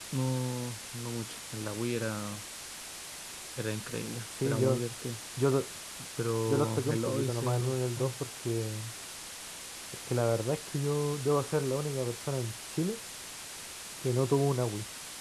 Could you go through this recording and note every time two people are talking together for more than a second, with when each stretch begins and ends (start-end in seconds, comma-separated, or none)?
6.5-8.1